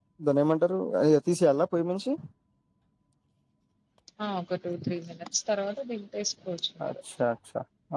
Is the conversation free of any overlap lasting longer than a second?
Yes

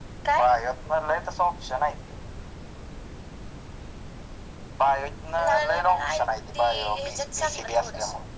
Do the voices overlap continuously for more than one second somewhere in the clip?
Yes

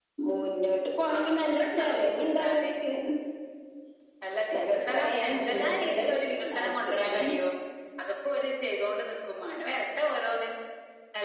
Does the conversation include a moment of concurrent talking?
Yes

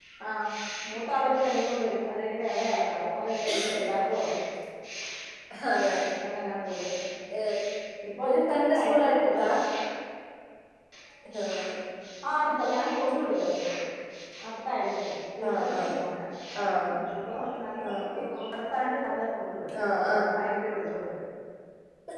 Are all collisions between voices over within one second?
No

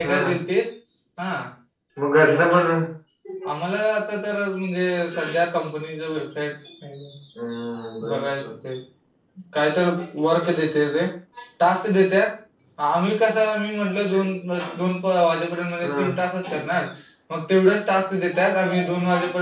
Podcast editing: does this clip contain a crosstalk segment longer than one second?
No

